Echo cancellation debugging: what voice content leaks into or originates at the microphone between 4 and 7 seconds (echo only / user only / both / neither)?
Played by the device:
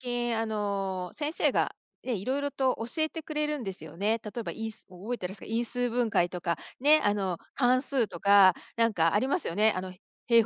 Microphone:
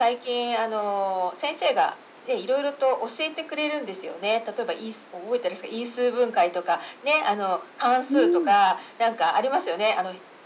echo only